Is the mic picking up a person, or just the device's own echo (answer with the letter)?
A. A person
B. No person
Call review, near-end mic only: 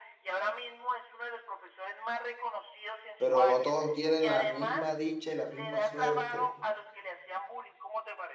A